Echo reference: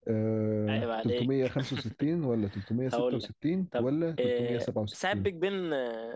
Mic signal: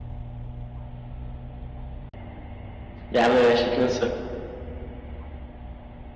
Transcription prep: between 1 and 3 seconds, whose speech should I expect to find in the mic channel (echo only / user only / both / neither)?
neither